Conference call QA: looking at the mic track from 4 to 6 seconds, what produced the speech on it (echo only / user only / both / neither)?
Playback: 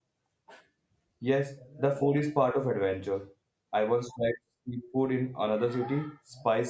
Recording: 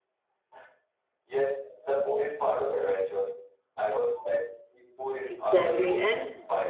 both